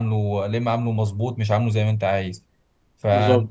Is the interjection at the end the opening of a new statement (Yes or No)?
No